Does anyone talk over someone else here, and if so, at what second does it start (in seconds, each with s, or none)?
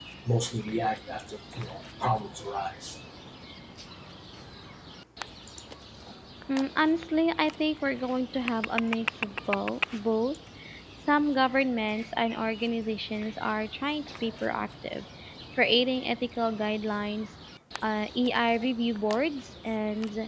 none